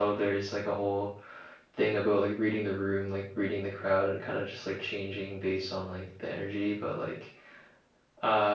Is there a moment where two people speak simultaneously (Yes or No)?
No